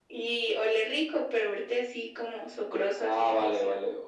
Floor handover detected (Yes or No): Yes